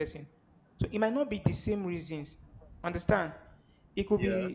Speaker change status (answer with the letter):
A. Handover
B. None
B